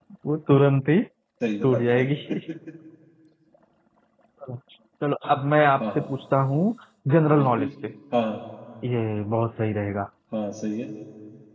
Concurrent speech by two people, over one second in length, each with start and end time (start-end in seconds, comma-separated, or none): none